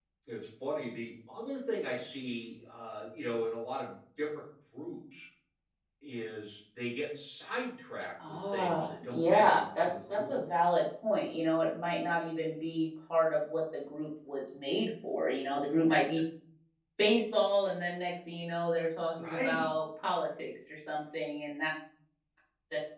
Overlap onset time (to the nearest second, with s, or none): 8 s